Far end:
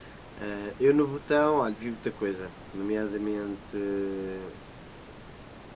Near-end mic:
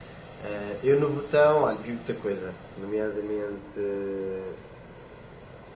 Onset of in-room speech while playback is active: none

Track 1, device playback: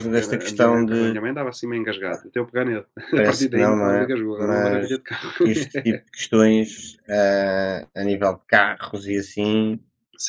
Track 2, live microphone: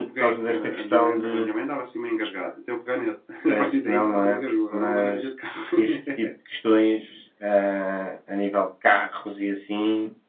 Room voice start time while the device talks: none

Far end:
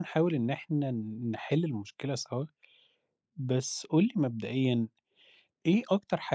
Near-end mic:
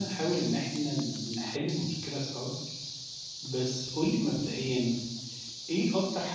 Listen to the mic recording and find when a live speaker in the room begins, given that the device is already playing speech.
none

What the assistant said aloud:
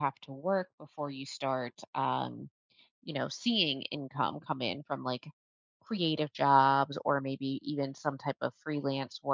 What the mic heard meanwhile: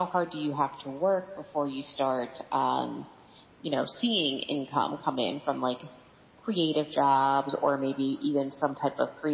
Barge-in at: none

